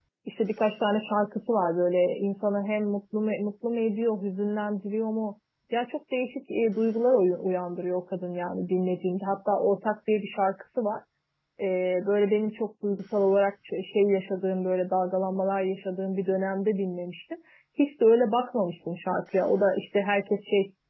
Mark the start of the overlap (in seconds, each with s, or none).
none